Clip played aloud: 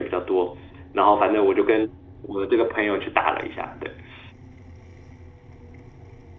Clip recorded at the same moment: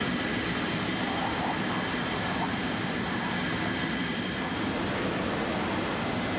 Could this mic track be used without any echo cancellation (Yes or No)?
Yes